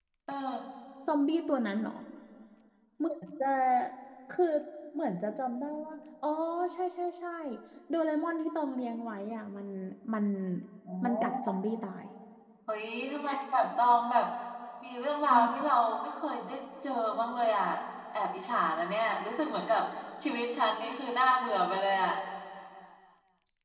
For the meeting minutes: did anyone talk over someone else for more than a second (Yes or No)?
No